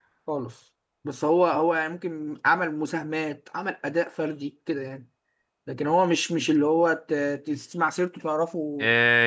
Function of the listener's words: taking over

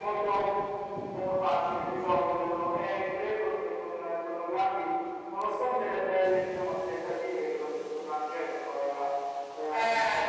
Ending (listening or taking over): listening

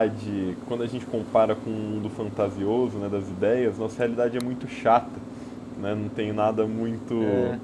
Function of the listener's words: listening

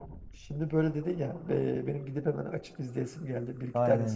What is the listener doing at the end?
taking over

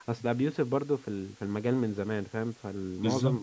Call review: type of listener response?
listening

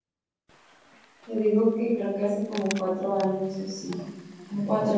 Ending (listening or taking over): taking over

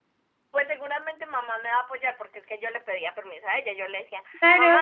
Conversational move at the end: taking over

